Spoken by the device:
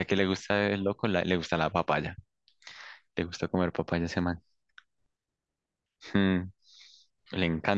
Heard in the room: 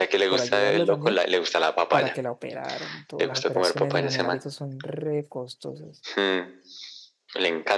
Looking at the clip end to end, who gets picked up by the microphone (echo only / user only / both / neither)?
both